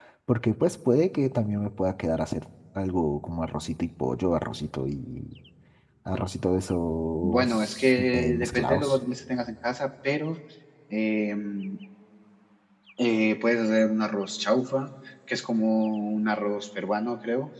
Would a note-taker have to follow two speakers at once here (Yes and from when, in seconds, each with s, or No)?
Yes, from 7.2 s